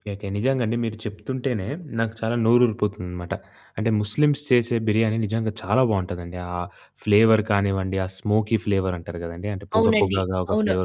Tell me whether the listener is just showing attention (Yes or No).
No